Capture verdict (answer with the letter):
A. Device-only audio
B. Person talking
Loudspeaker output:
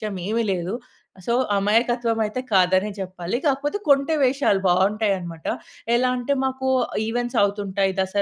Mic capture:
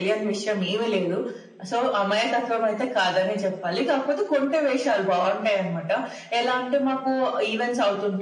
A